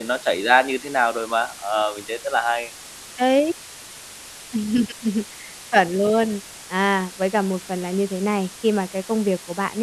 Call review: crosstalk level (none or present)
none